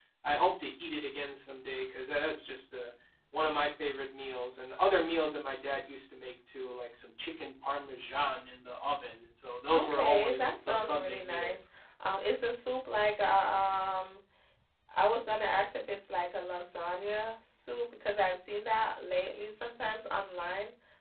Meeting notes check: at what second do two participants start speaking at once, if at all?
9.7 s

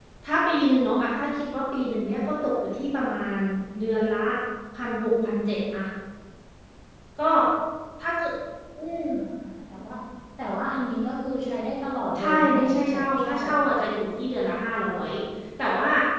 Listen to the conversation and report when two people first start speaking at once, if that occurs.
12.2 s

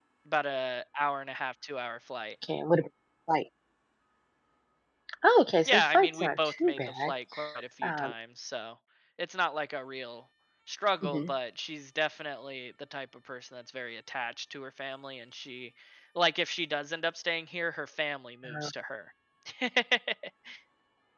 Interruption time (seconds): 5.7 s

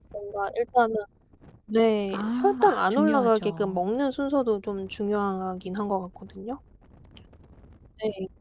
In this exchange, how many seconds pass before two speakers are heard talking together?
2.1 s

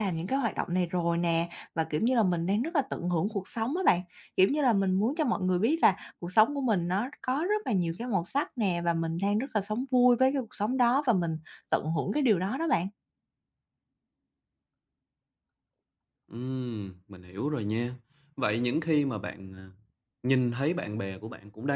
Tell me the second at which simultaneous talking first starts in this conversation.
none

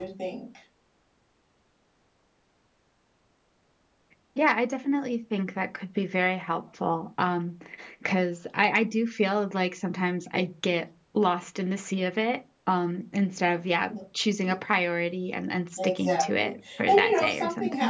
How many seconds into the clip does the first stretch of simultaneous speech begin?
15.8 s

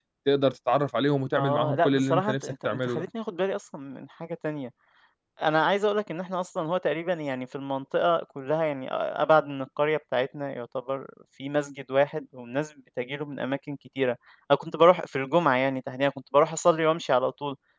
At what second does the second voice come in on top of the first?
1.3 s

